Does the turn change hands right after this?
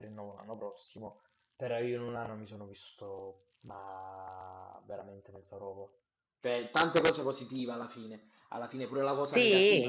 No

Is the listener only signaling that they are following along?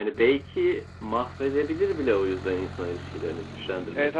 No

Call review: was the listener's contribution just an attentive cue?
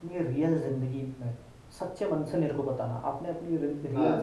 Yes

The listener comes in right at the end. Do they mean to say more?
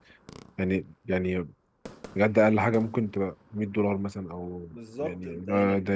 Yes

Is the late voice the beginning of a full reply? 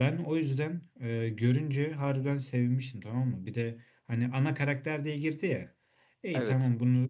No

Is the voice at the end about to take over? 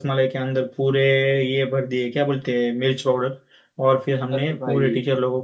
No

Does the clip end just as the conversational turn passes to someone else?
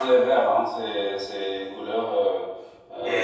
Yes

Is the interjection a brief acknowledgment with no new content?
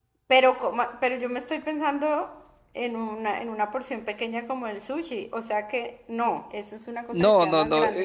No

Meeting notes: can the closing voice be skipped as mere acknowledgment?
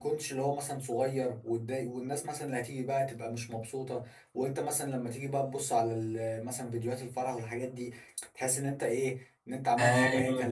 No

